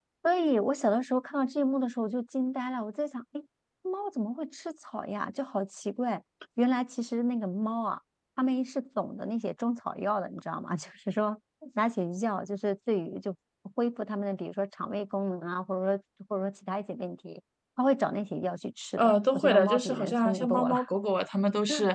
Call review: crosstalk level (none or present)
present